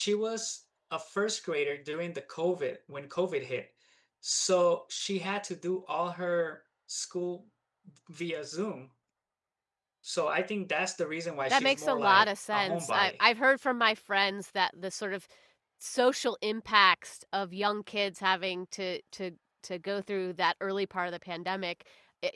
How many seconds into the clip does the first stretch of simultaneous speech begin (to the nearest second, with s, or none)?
12 s